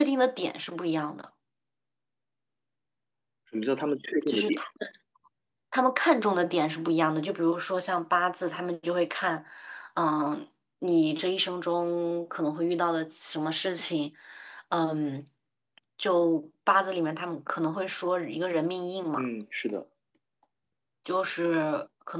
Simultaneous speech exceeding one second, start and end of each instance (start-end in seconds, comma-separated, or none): none